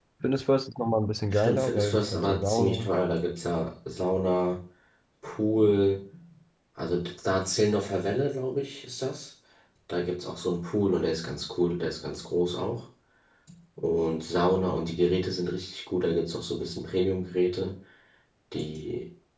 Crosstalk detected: Yes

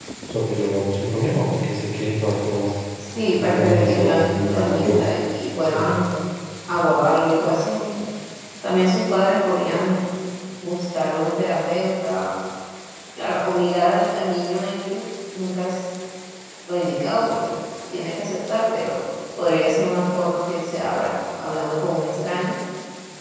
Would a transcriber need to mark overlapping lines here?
Yes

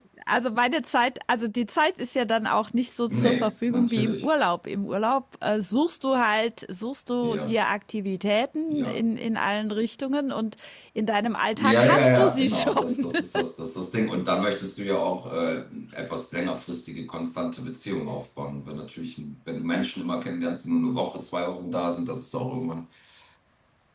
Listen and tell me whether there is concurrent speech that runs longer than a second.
Yes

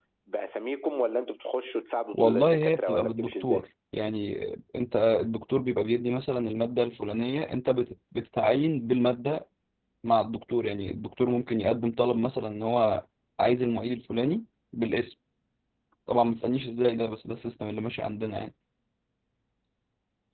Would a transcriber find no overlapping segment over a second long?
No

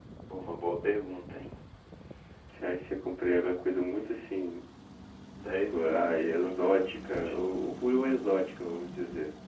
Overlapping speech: Yes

